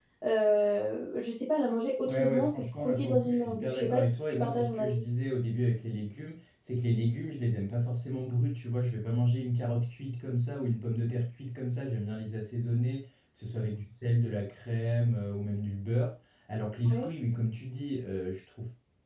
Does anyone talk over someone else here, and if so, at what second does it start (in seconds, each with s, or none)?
2.1 s